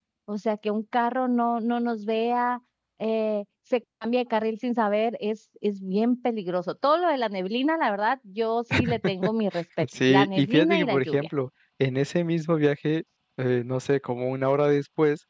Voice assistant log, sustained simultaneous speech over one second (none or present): present